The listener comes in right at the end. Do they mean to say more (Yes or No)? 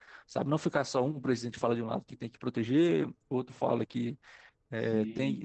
No